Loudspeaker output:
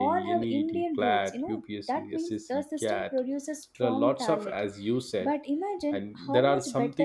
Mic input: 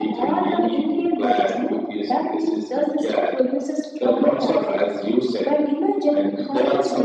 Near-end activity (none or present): none